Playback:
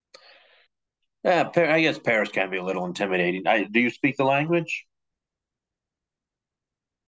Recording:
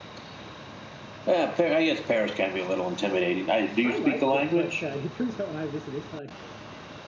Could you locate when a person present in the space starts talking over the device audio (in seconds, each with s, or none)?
3.8 s